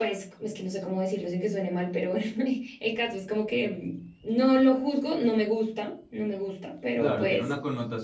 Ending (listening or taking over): taking over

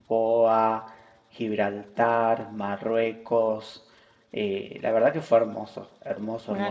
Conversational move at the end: listening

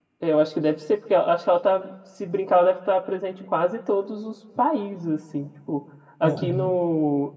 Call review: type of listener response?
listening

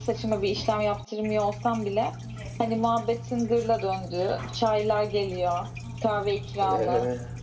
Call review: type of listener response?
listening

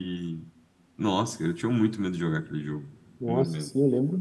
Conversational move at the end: taking over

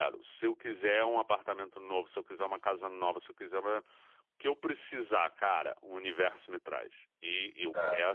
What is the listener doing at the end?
listening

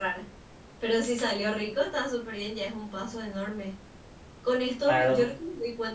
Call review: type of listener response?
listening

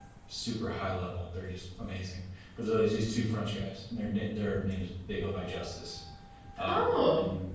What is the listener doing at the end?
listening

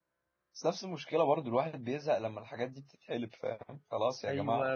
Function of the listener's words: taking over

